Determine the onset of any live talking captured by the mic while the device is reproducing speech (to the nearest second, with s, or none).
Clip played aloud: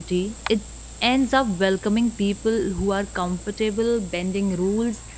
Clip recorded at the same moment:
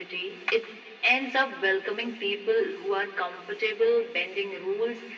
none